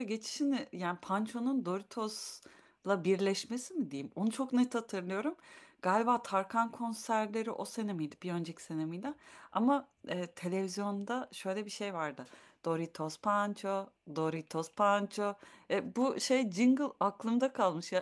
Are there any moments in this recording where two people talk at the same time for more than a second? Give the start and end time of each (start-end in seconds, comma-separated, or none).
none